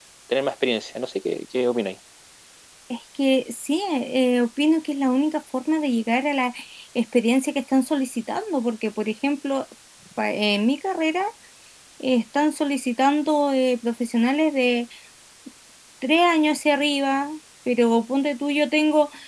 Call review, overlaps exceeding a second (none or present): none